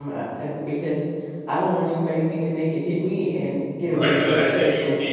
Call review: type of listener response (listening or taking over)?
taking over